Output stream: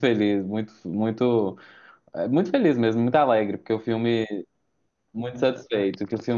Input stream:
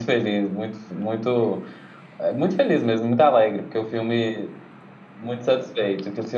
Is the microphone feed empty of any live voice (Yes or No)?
Yes